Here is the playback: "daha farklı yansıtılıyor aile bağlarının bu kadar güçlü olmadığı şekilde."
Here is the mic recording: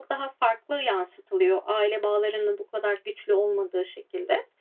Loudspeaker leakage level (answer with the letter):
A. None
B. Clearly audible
B